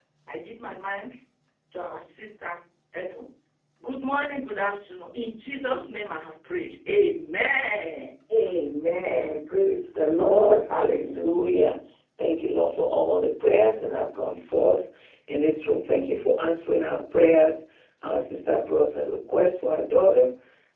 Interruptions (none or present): none